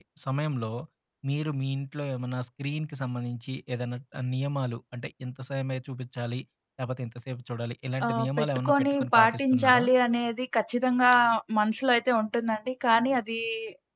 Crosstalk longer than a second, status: present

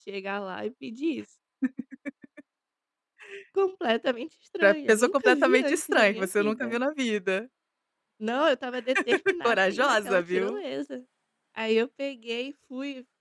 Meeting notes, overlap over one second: present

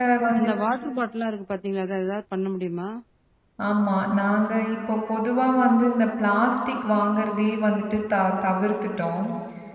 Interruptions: none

